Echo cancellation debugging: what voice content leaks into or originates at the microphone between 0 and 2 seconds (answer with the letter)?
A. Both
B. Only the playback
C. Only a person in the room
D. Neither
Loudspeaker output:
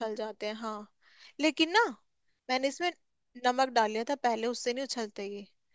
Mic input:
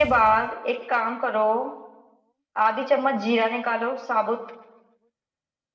C